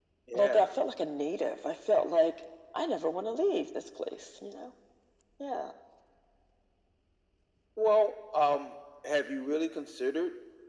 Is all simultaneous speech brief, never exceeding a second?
Yes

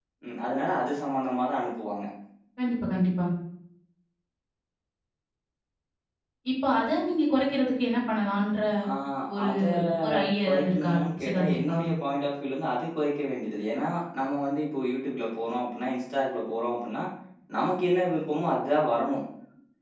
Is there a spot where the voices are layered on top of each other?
Yes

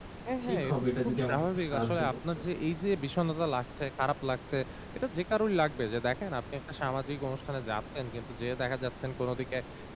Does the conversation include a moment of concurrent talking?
Yes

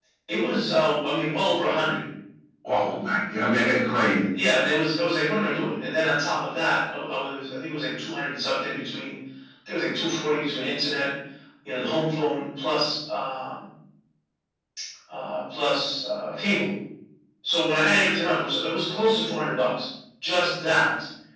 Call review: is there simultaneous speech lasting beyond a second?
No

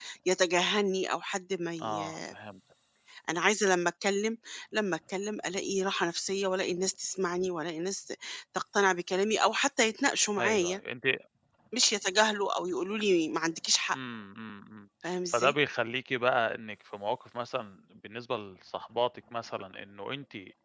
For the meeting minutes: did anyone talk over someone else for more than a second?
No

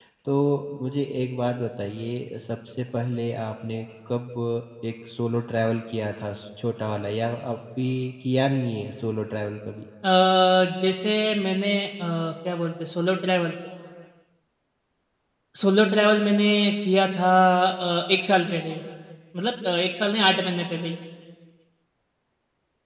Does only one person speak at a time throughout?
Yes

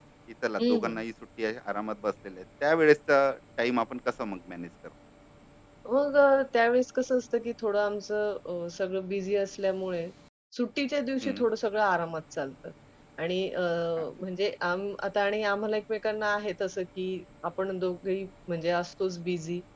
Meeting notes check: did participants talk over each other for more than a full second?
No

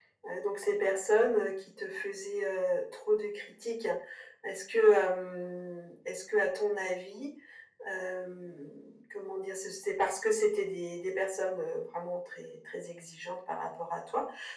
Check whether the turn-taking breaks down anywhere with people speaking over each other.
No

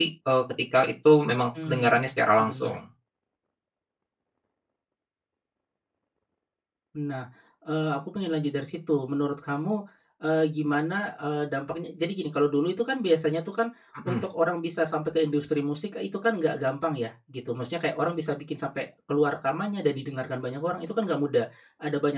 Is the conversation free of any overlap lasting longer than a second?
Yes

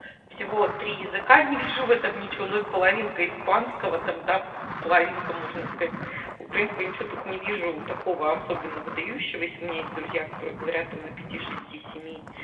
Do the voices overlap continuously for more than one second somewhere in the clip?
No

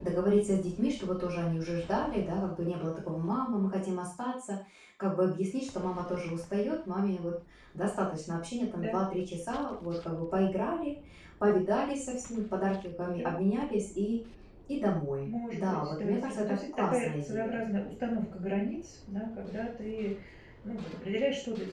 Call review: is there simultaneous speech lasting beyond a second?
Yes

